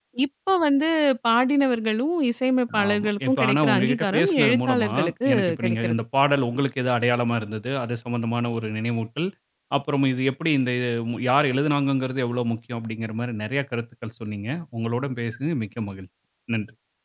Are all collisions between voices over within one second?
No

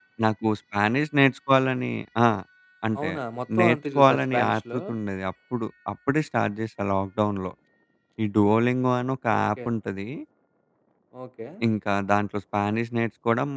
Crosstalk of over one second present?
Yes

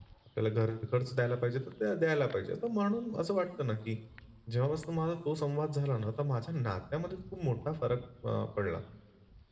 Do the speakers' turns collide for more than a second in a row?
No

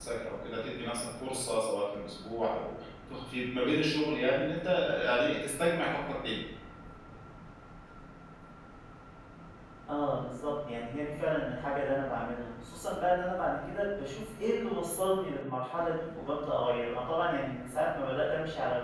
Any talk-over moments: No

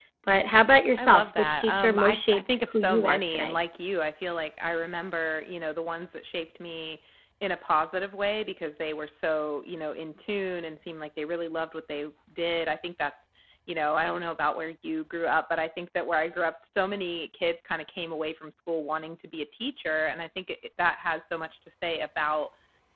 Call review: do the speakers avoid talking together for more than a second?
No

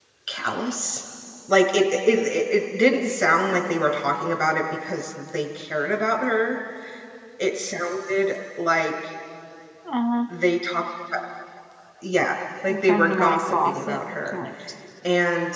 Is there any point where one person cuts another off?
Yes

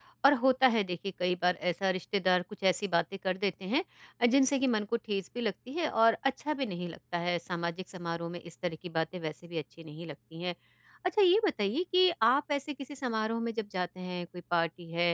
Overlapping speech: No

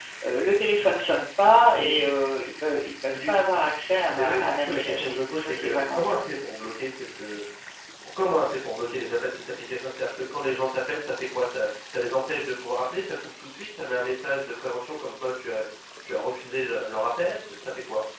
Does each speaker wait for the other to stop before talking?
No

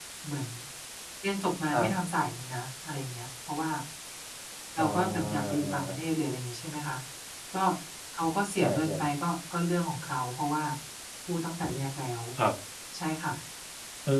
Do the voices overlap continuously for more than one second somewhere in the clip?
Yes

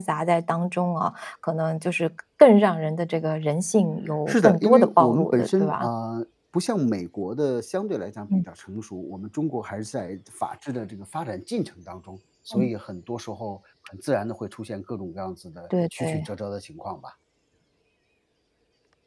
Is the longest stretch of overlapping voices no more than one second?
No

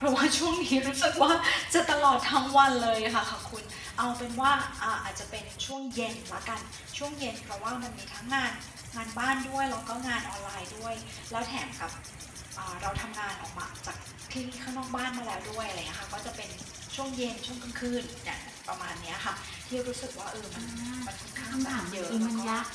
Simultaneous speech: Yes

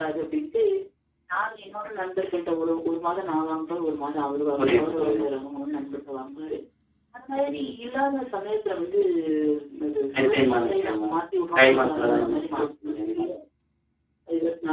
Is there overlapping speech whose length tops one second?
Yes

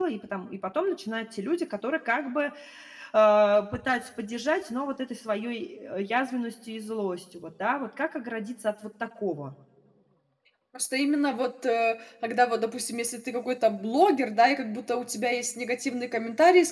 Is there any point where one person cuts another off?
No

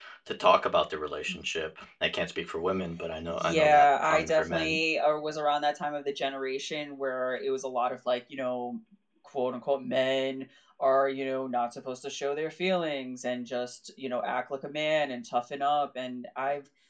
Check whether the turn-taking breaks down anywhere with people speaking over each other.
Yes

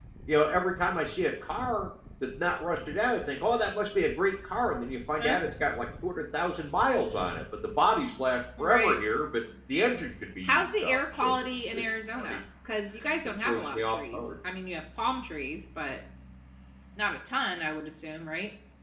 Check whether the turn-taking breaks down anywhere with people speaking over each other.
Yes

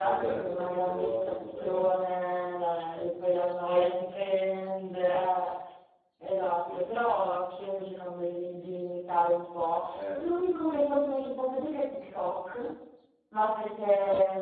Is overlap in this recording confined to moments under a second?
No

